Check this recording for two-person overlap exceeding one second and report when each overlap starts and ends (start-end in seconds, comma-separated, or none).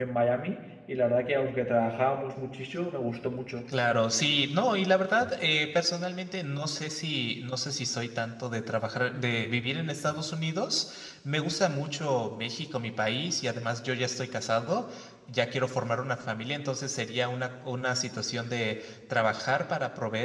none